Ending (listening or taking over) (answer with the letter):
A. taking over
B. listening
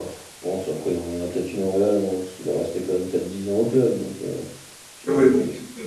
A